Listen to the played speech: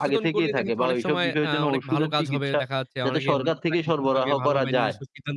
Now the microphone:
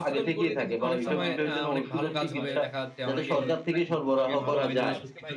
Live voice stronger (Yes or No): No